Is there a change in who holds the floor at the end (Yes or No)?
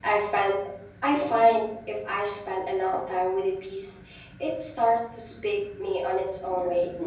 Yes